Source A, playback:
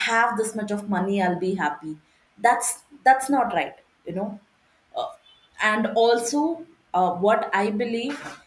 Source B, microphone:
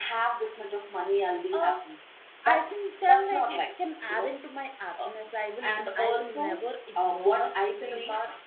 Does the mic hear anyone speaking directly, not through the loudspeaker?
Yes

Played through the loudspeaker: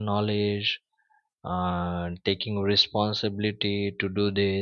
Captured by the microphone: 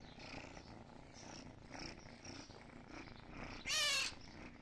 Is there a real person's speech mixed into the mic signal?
No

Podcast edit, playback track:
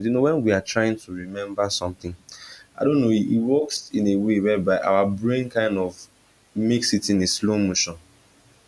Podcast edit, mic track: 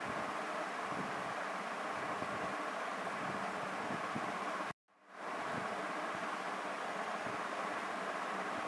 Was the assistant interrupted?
No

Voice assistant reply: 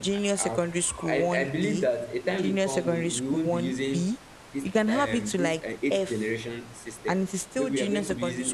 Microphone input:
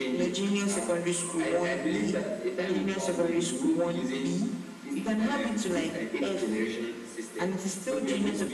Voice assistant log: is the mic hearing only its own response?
Yes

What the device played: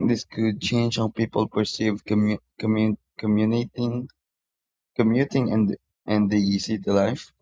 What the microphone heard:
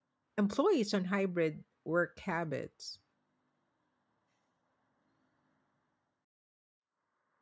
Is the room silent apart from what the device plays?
No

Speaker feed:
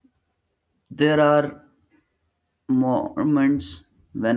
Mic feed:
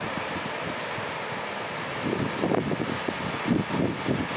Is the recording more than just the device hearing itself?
No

